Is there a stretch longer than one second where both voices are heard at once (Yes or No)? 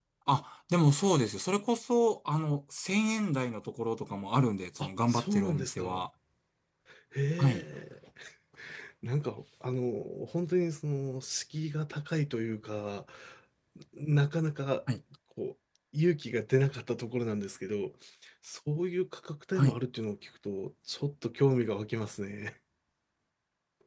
Yes